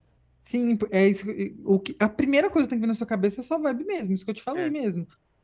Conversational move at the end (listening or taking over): listening